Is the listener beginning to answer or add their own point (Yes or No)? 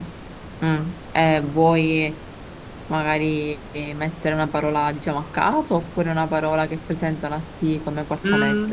Yes